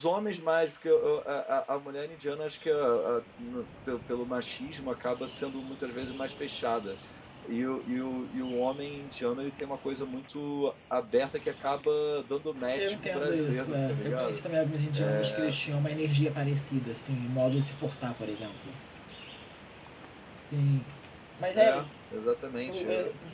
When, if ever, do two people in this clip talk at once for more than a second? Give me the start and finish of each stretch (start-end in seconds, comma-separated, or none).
12.8-14.4